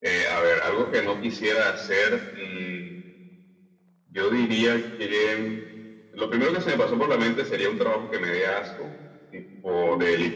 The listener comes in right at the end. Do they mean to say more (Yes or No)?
No